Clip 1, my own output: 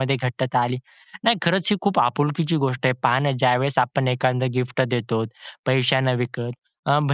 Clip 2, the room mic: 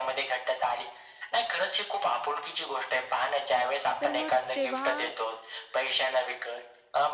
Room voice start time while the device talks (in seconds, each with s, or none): 4.0 s